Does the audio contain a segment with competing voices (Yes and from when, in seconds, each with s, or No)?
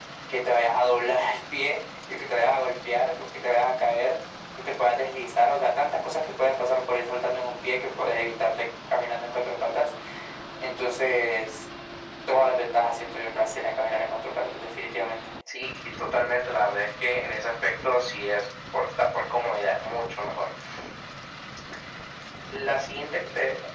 No